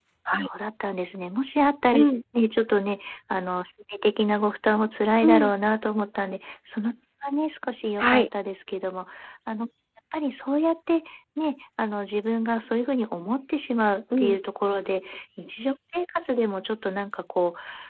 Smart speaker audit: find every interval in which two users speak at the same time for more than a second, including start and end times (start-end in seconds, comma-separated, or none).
none